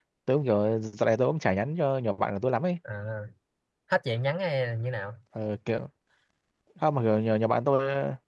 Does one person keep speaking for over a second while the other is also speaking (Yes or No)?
No